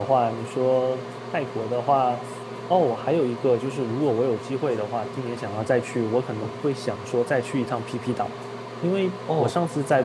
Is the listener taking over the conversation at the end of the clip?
No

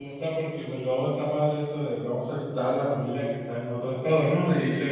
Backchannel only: Yes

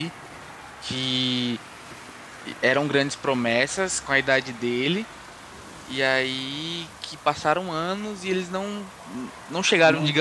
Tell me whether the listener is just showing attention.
Yes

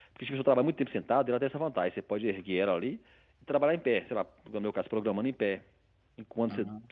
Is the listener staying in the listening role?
Yes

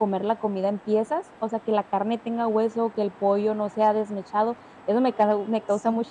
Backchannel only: Yes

